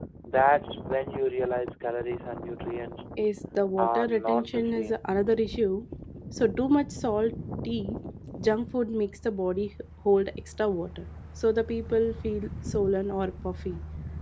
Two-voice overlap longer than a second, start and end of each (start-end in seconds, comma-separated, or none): 3.8-5.0